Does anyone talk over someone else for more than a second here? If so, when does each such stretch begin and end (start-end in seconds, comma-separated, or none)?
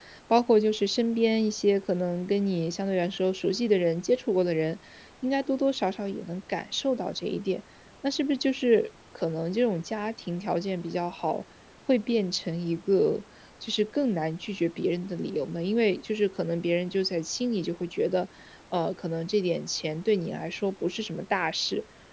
none